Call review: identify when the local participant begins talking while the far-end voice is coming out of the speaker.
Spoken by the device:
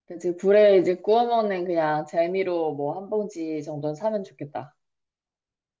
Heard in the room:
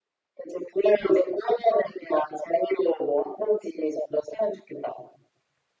none

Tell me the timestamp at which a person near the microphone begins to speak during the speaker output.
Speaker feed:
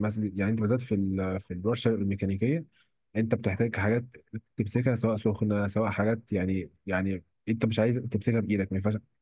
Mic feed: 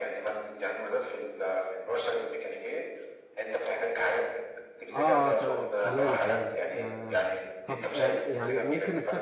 5 s

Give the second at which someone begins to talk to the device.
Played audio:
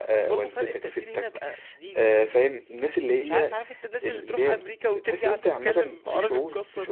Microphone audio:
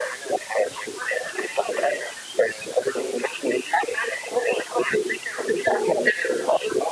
none

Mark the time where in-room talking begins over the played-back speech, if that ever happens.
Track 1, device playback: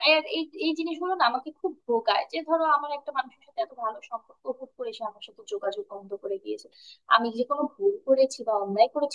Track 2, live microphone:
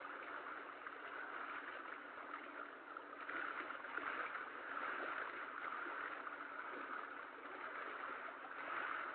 none

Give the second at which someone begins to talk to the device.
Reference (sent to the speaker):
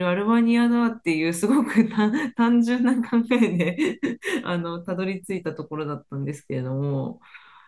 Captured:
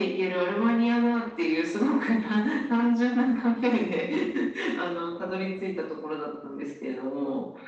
none

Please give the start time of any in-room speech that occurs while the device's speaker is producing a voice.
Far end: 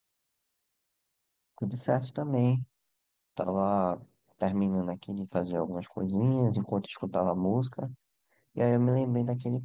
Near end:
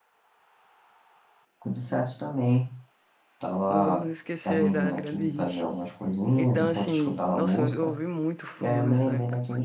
4 s

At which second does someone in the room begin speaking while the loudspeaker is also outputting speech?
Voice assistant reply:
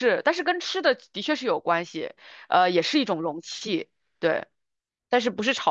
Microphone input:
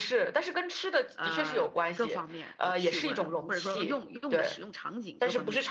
1 s

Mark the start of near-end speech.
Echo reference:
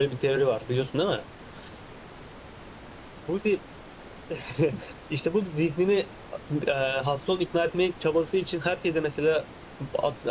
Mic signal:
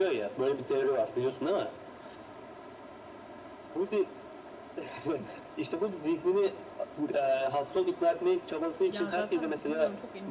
9 s

